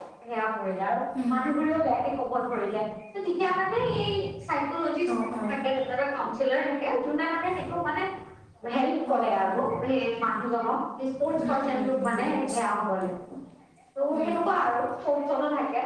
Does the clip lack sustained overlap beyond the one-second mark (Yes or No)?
No